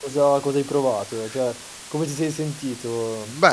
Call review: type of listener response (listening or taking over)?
taking over